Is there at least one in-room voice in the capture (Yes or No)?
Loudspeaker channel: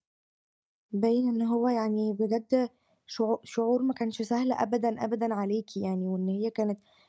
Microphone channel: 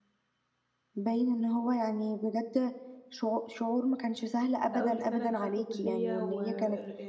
Yes